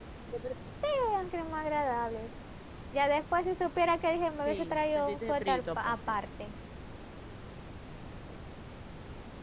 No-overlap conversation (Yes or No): No